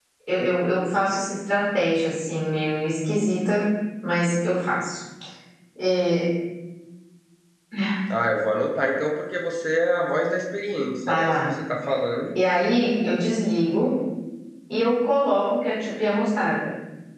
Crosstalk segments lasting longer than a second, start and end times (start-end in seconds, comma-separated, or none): none